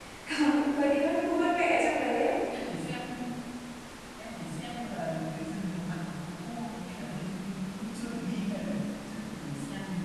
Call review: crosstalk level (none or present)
none